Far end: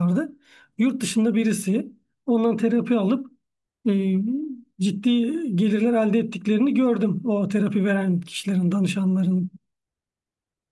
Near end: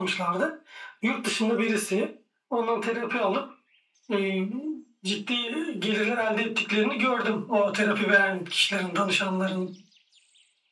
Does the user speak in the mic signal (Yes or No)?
No